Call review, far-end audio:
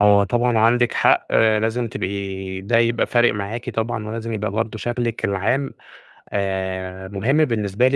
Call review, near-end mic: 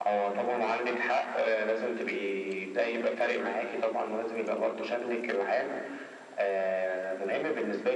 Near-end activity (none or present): none